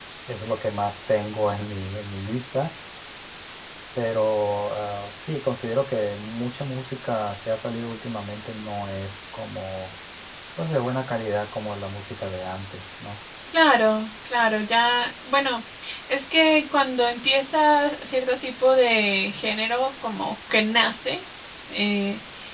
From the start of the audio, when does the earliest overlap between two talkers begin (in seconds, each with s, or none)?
none